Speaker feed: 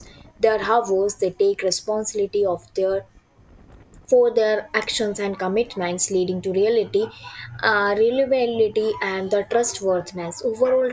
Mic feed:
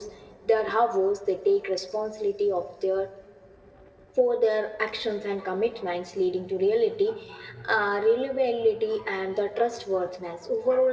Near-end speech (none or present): none